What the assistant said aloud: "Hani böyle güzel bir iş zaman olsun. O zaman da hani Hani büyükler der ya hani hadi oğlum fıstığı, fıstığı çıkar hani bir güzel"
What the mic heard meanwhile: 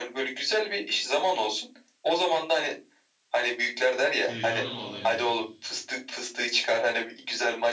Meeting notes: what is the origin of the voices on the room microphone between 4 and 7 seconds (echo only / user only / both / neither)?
both